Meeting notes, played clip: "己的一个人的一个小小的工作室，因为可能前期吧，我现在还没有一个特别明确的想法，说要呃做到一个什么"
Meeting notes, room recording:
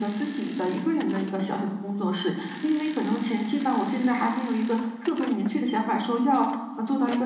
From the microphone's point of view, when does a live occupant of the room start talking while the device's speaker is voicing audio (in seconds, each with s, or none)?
none